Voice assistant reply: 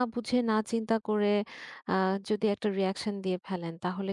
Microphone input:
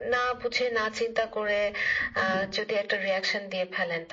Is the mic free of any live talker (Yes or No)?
No